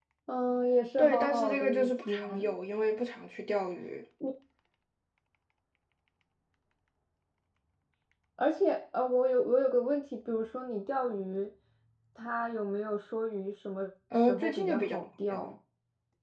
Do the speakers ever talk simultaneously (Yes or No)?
Yes